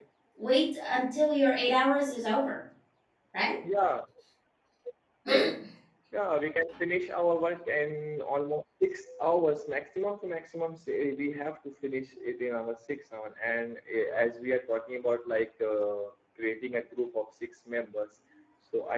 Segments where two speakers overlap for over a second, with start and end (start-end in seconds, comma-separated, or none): none